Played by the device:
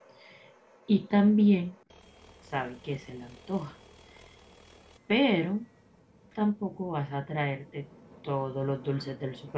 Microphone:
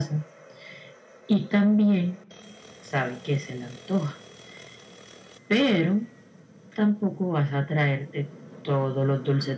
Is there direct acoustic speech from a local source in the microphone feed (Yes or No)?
No